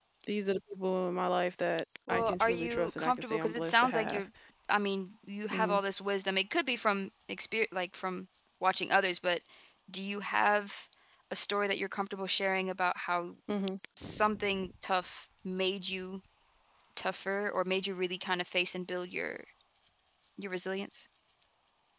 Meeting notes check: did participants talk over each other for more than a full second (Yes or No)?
Yes